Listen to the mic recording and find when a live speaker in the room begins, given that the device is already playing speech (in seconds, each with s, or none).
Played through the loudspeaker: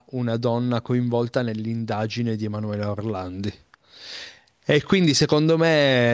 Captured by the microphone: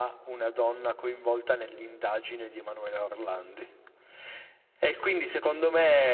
none